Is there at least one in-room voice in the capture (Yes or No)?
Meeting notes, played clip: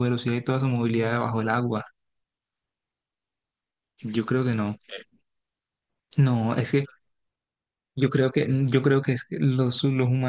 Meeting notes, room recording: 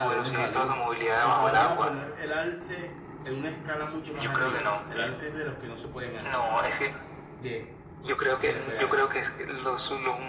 Yes